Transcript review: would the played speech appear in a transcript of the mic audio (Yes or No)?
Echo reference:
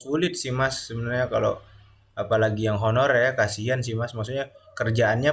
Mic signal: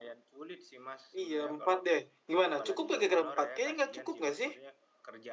Yes